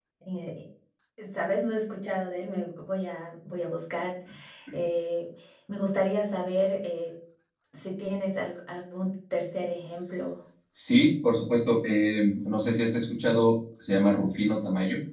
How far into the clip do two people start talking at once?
none

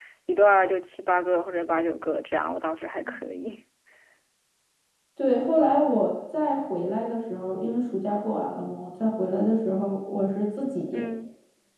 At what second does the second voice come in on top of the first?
none

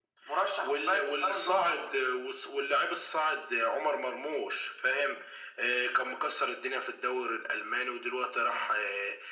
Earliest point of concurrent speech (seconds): 1 s

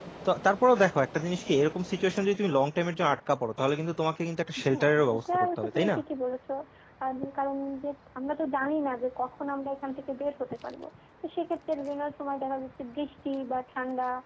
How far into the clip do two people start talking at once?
5 s

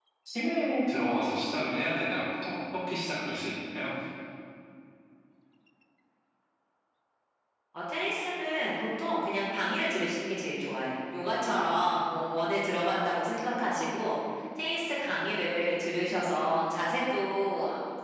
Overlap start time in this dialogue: none

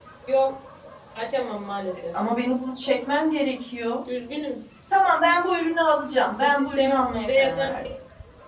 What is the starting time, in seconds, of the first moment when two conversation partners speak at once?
6 s

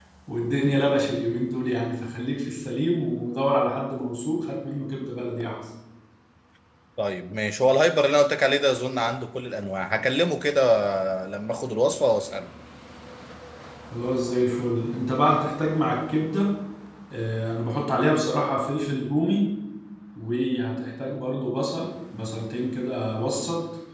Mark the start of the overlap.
none

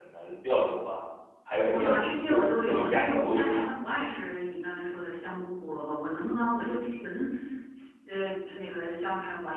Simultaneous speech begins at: 2 s

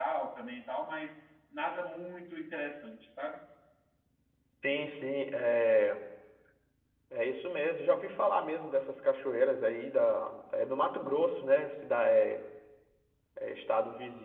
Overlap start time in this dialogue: none

